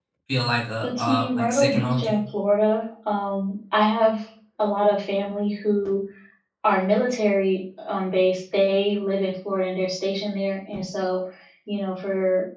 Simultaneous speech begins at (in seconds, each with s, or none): 0.8 s